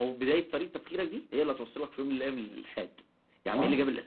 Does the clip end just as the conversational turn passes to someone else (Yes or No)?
No